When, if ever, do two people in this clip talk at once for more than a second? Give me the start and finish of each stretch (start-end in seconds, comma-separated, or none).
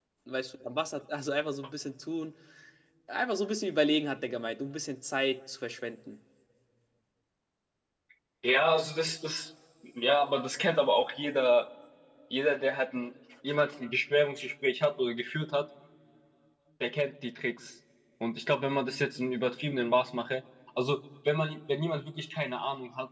none